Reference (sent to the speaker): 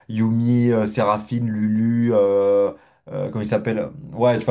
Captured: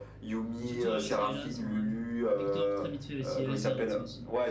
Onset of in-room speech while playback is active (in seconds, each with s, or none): 0.6 s